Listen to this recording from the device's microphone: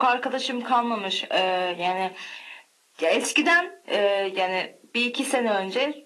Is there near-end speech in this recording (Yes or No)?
No